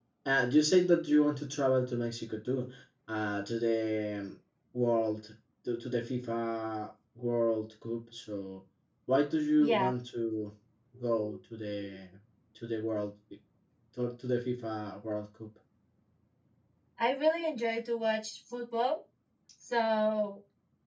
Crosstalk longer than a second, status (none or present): none